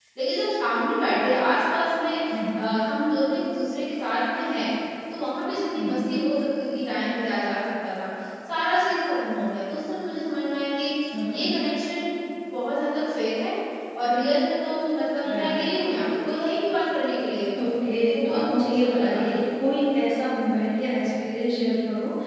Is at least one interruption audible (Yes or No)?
Yes